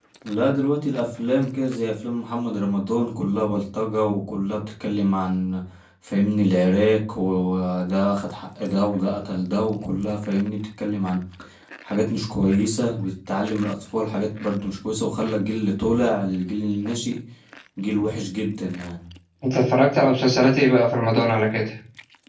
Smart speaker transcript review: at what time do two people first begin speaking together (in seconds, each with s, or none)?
none